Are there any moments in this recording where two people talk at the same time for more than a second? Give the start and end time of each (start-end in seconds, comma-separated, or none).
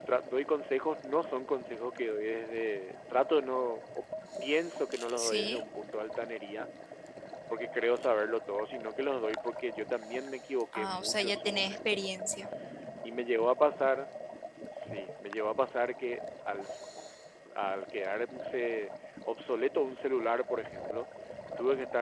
10.8-12.0